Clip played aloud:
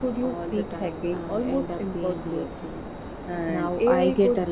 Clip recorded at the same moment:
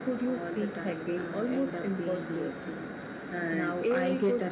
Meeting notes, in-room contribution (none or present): none